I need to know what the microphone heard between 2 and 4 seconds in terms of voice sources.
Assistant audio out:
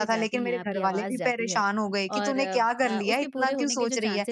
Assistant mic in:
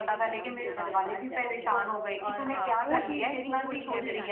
both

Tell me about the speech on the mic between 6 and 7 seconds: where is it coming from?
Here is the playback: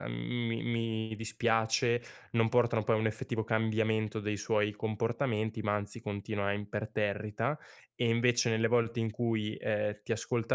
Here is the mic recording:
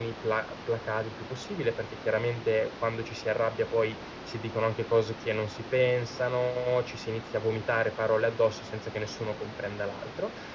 user only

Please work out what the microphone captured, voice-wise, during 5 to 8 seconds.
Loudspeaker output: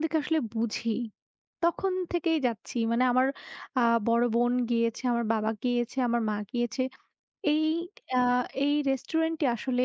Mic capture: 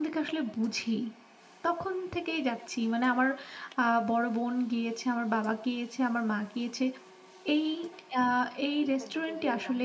echo only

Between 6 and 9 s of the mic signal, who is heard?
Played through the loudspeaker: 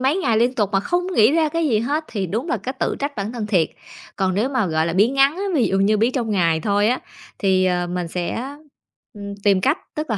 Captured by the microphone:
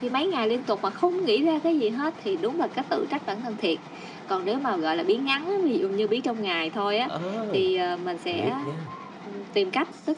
both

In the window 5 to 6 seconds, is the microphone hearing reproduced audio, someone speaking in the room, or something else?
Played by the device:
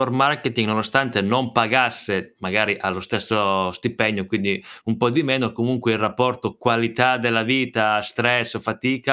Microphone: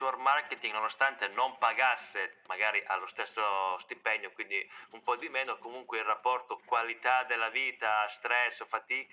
echo only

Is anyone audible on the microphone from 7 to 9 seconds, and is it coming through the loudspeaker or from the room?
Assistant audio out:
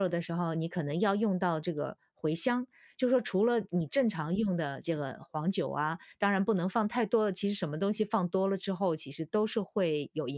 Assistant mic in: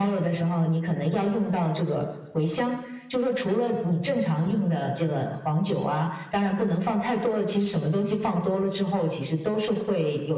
echo only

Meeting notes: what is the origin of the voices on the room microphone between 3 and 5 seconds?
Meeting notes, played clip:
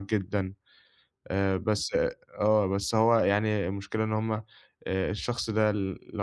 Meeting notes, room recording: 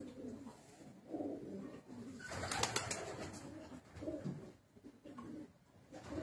neither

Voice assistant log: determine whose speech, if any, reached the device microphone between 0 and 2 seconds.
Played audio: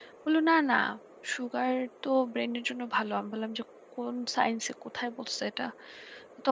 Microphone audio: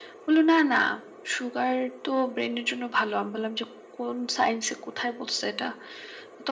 echo only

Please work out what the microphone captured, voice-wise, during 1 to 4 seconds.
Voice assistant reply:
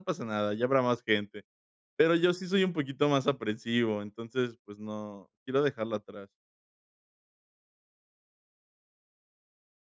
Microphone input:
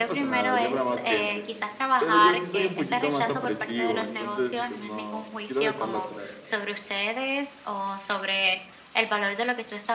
both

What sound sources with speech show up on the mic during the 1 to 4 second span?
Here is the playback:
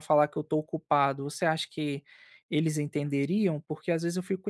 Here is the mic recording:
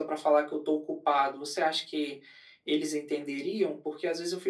echo only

